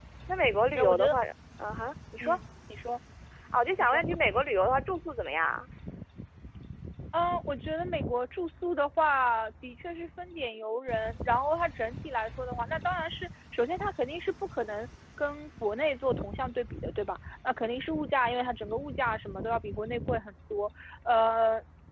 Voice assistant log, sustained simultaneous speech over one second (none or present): none